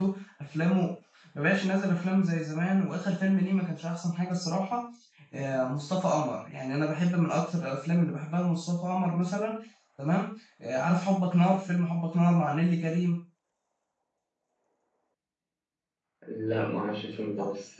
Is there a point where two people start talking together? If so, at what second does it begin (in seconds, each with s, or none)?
none